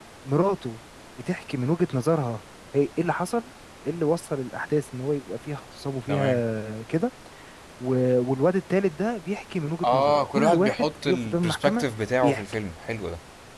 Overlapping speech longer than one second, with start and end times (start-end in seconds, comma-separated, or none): 9.8-11.8